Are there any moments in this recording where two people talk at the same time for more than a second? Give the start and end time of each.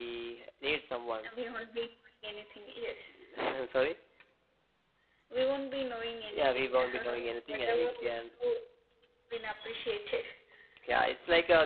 6.2-8.1

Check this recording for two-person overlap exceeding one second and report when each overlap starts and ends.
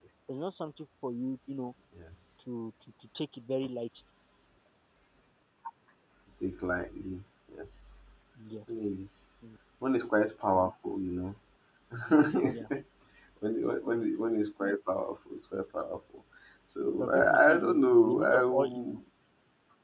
17.0-19.0

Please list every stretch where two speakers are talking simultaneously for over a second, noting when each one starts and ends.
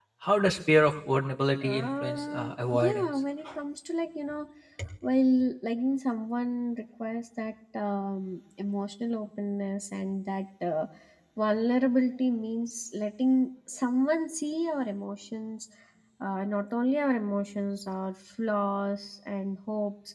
1.6-3.1

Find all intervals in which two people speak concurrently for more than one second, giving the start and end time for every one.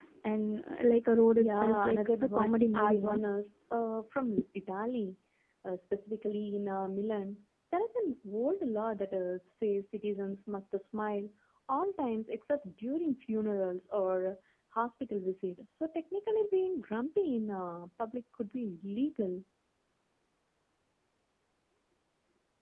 1.4-3.2

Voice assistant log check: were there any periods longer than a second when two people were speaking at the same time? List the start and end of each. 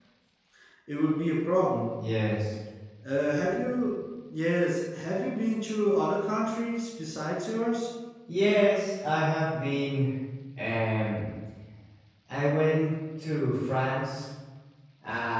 none

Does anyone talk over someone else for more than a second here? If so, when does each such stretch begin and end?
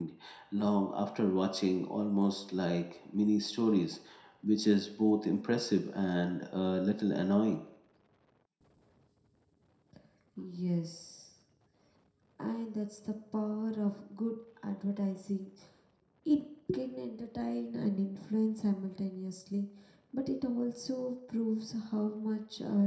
none

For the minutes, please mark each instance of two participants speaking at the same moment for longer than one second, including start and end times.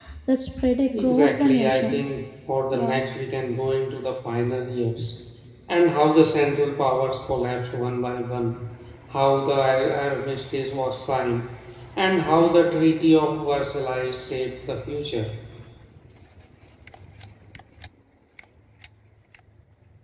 1.0-2.2

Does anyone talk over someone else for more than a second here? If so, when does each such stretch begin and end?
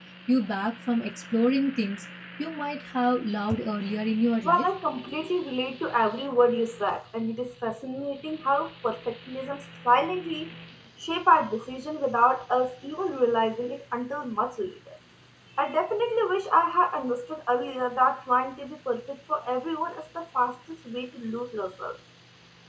none

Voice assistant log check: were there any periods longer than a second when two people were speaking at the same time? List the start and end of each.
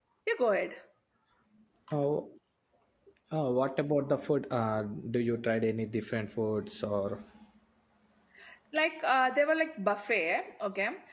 none

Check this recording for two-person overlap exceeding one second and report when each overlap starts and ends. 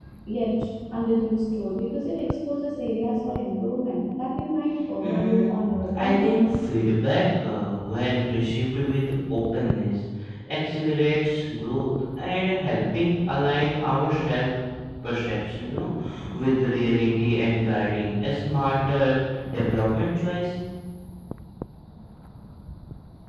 5.0-6.4

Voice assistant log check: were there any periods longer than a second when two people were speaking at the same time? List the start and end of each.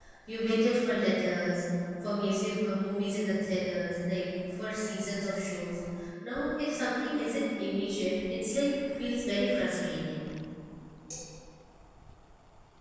none

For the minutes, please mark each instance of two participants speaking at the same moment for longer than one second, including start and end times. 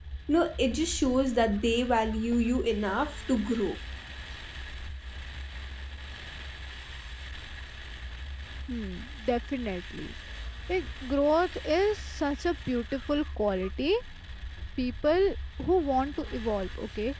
none

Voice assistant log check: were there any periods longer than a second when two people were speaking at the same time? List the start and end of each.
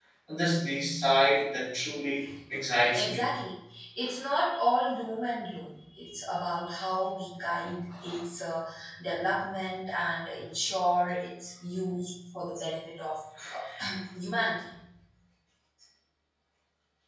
none

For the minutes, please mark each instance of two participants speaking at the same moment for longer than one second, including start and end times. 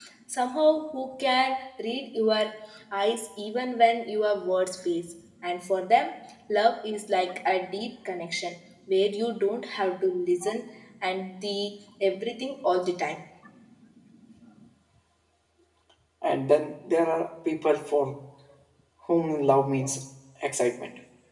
none

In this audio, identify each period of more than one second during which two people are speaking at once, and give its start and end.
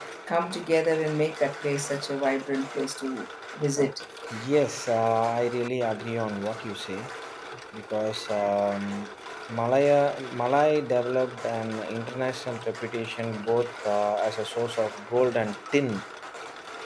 none

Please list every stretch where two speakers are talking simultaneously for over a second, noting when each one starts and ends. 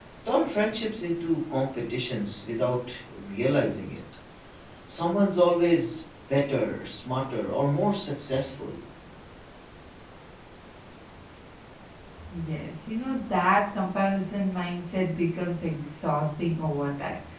none

